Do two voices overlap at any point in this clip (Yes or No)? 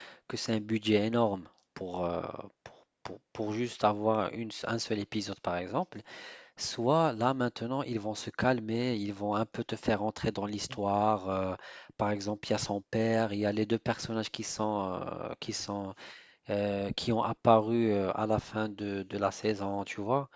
No